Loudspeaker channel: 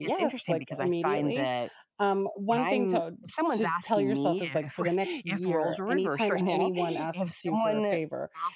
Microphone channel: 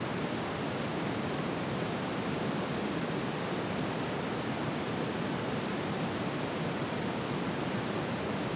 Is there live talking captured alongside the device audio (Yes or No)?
No